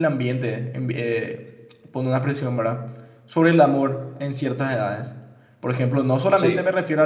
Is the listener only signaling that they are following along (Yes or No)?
Yes